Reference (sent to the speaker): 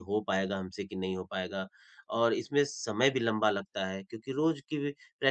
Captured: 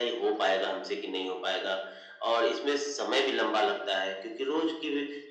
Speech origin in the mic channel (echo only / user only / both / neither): echo only